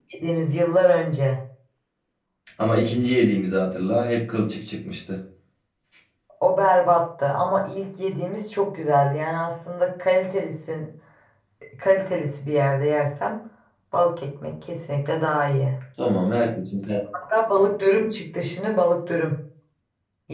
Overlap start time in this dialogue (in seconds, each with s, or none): none